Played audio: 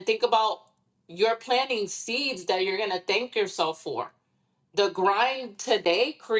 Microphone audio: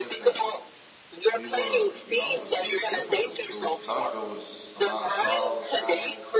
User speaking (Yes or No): Yes